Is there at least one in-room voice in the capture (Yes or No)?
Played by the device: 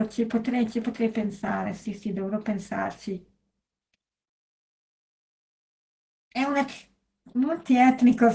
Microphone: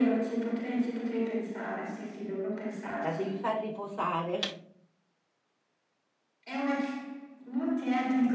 Yes